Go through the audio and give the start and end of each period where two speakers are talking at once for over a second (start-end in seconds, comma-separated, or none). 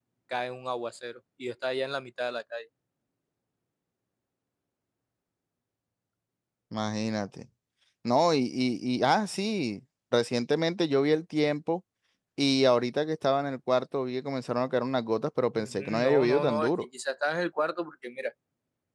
15.5-16.9